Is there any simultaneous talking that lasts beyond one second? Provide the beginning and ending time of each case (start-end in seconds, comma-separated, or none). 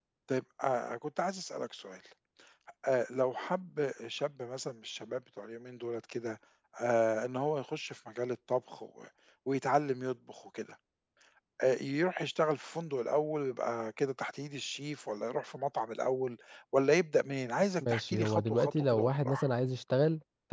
17.9-19.5